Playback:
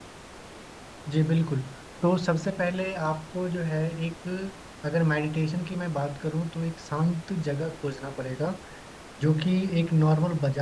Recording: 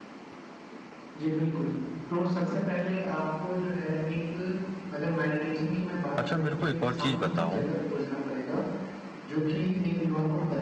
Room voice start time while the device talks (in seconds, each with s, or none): 6.2 s